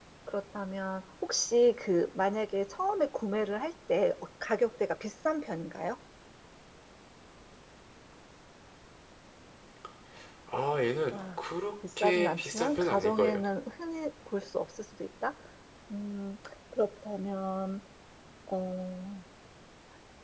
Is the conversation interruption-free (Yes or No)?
No